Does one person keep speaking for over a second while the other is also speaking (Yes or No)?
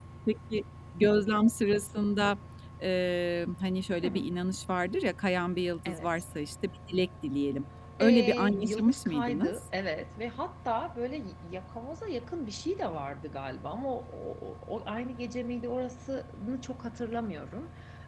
Yes